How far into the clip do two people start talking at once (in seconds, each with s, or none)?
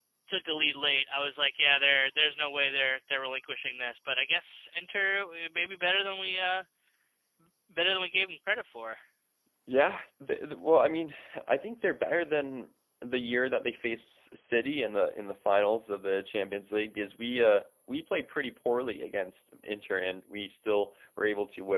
none